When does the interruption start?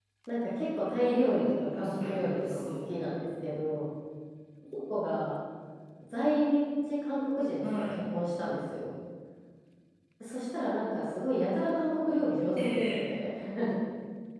1.5 s

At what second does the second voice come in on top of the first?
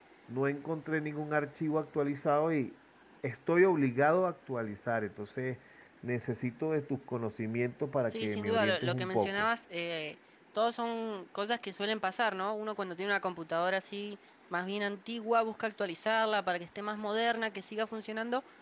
8.1 s

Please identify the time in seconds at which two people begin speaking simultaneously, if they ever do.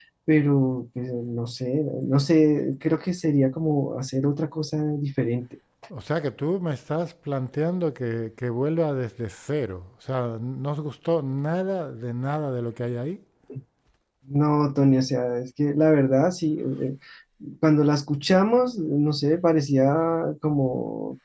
none

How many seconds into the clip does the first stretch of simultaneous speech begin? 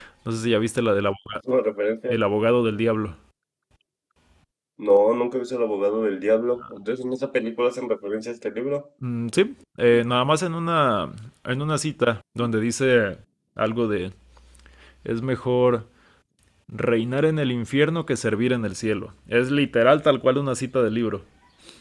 none

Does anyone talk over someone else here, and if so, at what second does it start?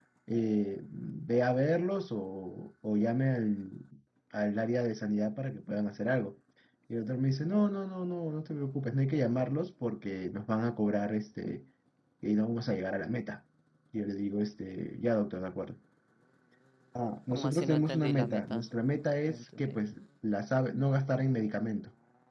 17.3 s

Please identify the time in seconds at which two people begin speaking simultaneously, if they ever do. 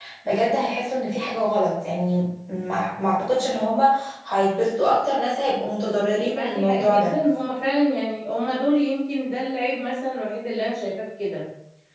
5.9 s

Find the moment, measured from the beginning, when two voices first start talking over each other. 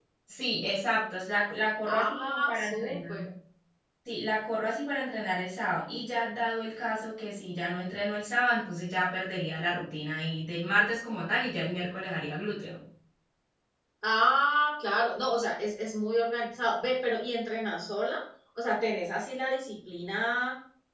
1.8 s

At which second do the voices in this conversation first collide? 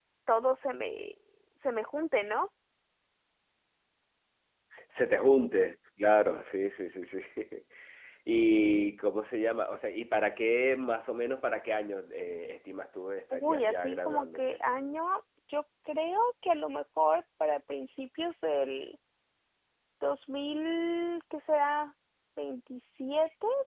13.3 s

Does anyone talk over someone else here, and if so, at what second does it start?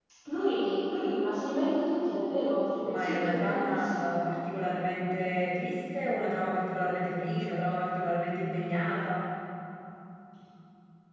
2.8 s

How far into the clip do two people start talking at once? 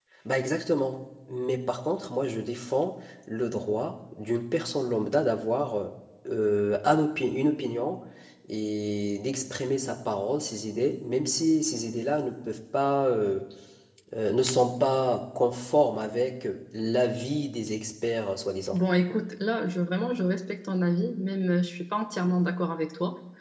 none

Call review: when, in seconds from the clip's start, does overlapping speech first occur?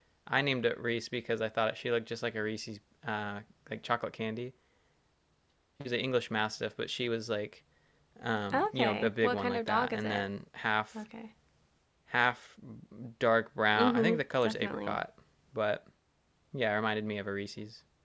8.5 s

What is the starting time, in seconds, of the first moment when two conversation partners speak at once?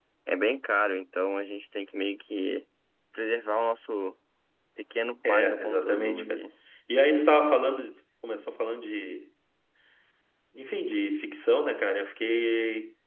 5.3 s

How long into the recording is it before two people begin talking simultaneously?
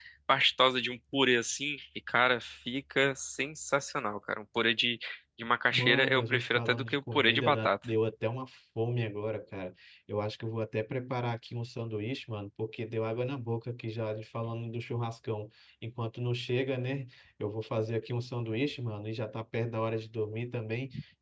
5.7 s

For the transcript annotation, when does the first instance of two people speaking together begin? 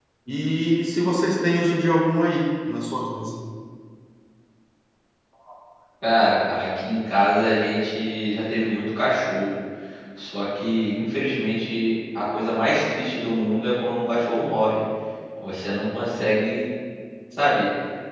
none

